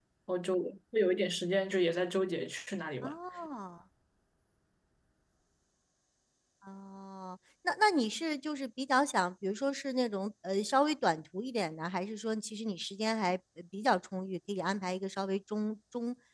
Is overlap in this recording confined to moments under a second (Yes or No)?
Yes